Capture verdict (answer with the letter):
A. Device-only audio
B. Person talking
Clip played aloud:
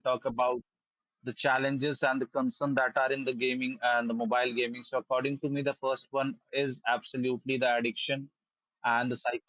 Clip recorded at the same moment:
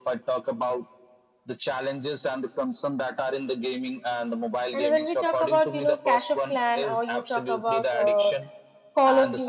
B